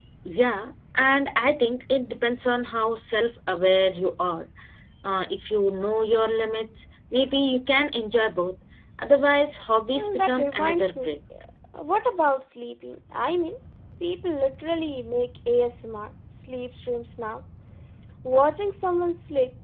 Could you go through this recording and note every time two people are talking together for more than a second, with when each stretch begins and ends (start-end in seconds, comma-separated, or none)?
9.9-11.2